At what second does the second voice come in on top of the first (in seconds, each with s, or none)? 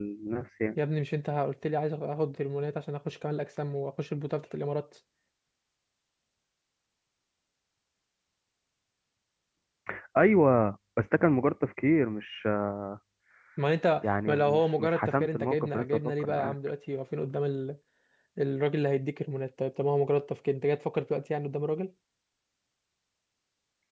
14.0 s